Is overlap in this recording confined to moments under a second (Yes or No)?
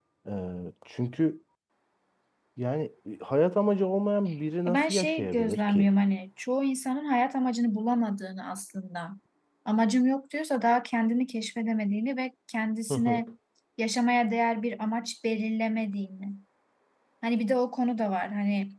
No